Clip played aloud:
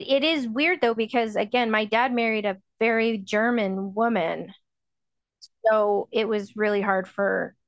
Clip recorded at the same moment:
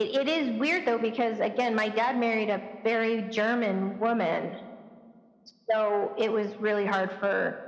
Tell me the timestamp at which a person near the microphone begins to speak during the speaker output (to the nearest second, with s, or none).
none